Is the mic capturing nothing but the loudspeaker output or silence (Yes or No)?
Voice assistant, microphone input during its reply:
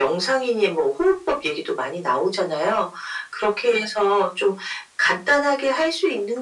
Yes